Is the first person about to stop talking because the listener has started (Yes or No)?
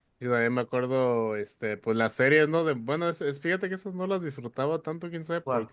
No